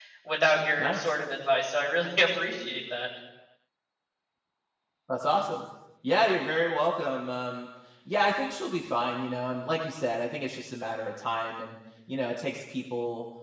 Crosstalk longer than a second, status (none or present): none